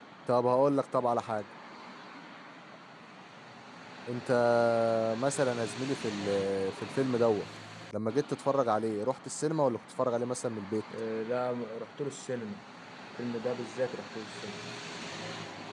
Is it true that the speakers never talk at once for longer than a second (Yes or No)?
Yes